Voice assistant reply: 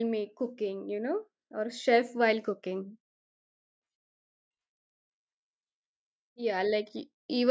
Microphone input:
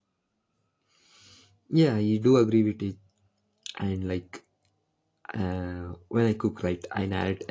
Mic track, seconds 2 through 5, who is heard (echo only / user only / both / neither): user only